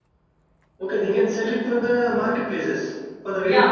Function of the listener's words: taking over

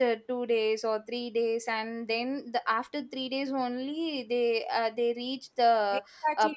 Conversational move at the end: taking over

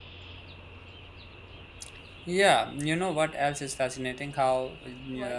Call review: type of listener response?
listening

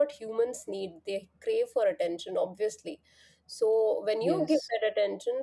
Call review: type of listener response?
listening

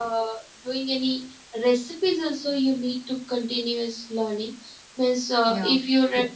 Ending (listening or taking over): listening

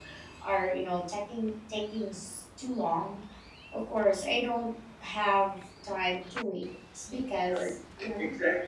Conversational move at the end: taking over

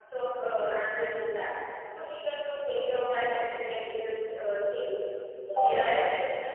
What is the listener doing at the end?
listening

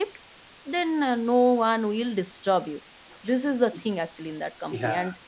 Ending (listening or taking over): taking over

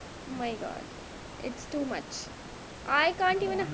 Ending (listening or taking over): listening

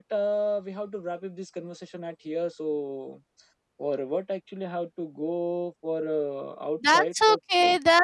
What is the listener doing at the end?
taking over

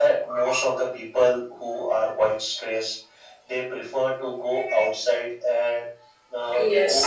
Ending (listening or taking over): listening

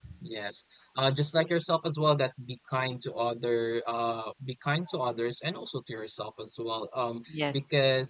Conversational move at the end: listening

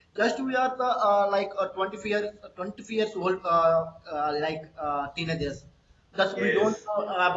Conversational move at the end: listening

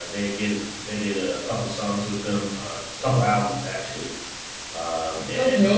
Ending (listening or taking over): taking over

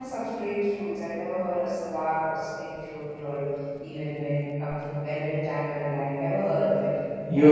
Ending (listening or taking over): taking over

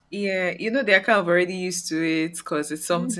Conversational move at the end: listening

